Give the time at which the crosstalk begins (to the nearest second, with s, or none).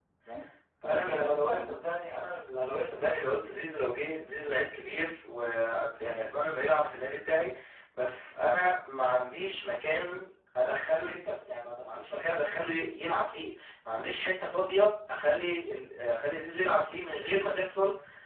1 s